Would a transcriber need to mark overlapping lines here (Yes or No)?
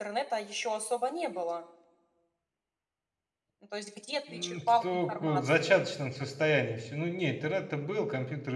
Yes